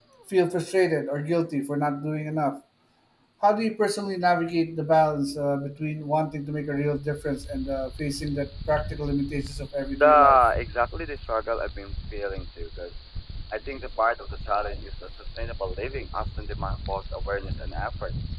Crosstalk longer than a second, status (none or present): none